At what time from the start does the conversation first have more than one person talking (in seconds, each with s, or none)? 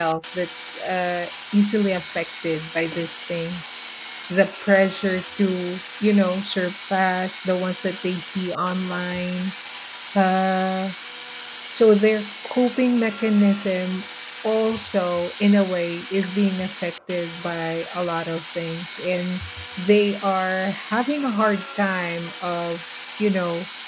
none